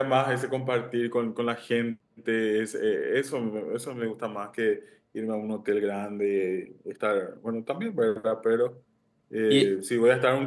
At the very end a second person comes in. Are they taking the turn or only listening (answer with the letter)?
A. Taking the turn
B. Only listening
B